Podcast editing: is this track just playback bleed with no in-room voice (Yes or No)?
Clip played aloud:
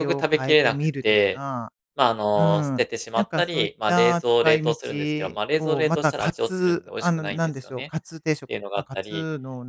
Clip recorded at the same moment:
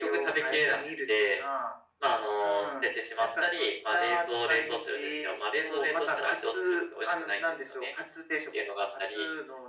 Yes